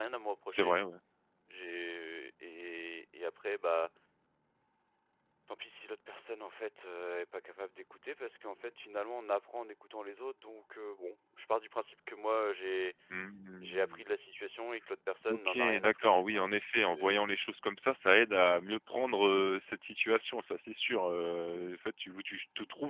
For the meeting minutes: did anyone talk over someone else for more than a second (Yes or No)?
Yes